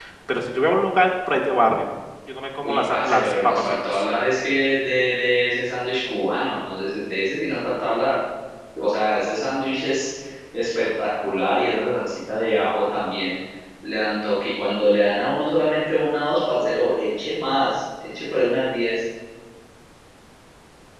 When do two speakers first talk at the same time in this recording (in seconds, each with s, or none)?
2.6 s